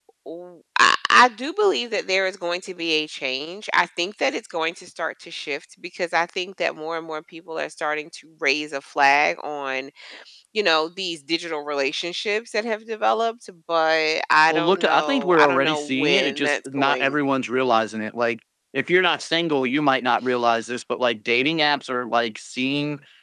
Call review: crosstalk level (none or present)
present